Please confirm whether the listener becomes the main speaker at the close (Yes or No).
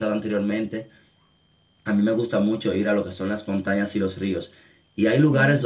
No